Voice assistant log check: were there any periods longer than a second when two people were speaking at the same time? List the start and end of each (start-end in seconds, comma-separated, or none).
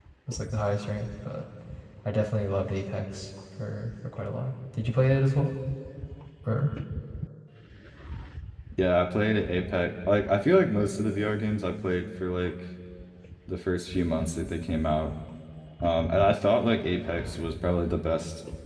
none